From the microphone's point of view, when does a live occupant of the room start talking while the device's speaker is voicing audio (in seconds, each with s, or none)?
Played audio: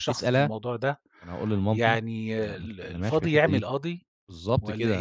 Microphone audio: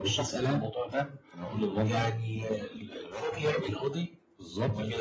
none